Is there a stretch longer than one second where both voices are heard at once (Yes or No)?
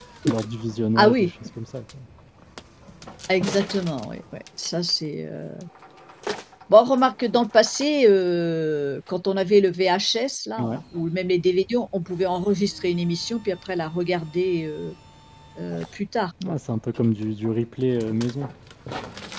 No